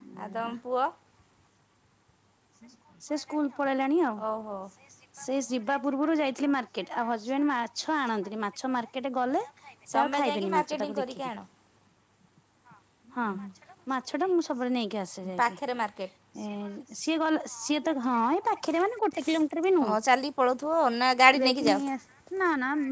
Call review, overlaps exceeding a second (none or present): present